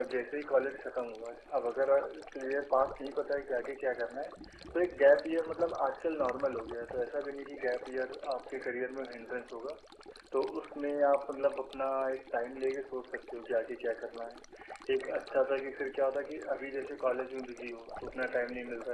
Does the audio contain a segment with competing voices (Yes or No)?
No